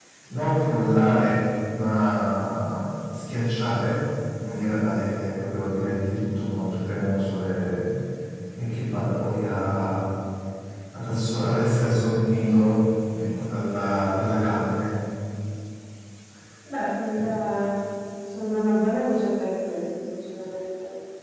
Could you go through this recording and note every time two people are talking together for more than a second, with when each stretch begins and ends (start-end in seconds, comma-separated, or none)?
none